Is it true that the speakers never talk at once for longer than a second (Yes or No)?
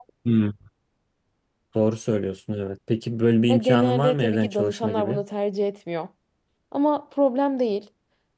No